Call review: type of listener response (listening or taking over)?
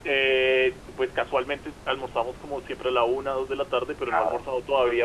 listening